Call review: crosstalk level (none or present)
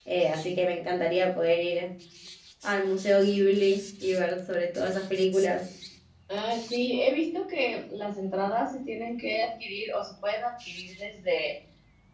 none